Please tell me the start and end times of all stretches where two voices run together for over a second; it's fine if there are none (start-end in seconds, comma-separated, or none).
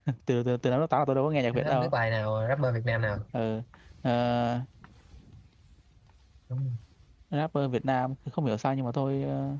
none